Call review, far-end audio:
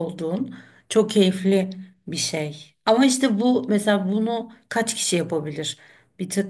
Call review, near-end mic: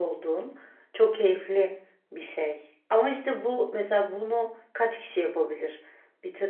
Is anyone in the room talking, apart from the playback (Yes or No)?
No